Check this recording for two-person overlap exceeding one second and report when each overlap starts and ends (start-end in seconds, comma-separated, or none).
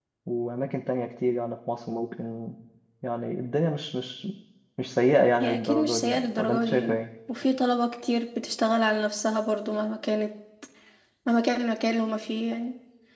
5.4-7.0